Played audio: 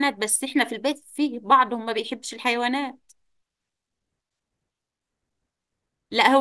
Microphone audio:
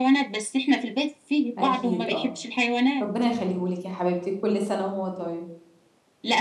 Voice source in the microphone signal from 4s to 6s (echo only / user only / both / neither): user only